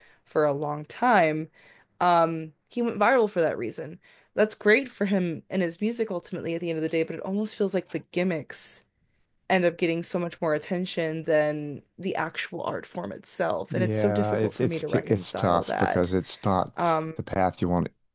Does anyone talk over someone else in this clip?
Yes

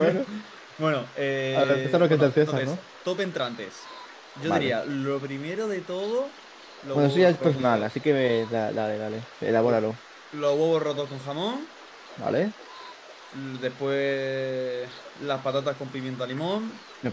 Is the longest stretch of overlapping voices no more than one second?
No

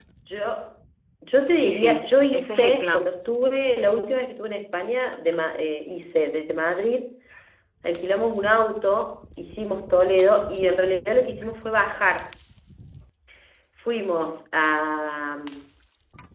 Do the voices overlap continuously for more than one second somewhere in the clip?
Yes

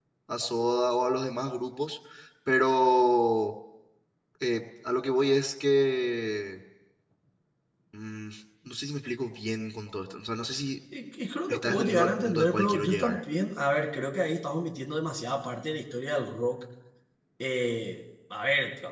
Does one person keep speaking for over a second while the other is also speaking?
Yes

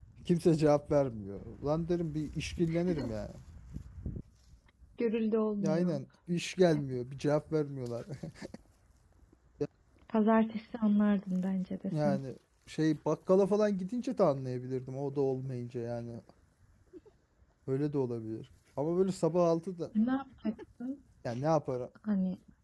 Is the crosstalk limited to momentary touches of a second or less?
Yes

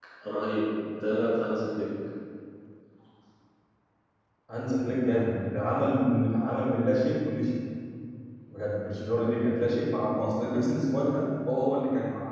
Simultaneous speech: No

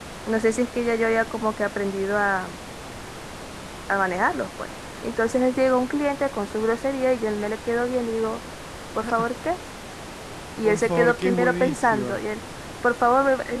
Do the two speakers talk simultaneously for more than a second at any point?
Yes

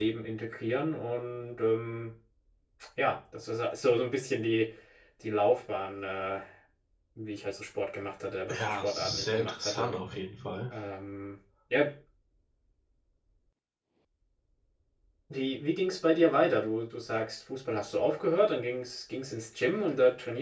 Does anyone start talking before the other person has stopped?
Yes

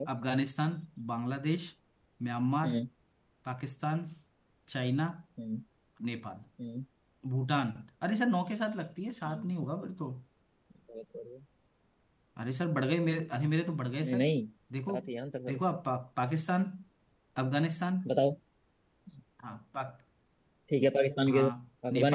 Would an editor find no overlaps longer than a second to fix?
Yes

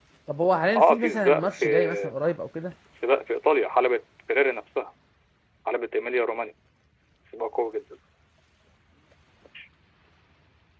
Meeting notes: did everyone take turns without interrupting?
No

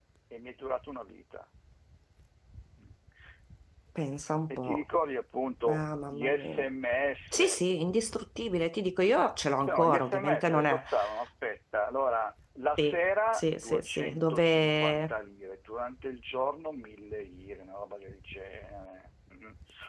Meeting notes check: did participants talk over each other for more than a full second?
Yes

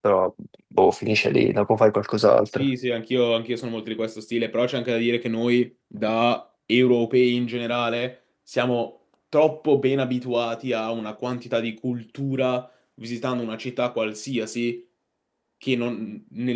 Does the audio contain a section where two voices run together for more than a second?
No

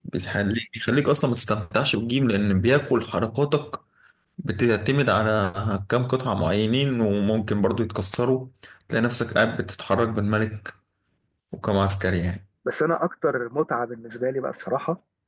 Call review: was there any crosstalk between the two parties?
No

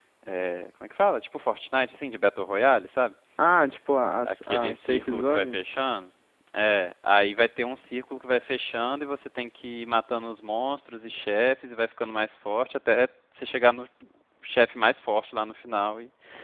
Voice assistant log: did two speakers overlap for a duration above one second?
Yes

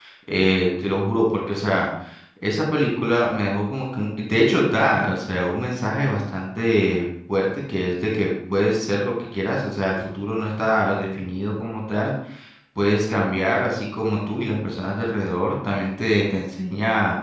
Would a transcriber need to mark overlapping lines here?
No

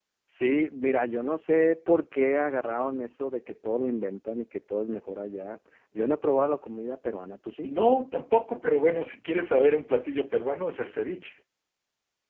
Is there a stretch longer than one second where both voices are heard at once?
No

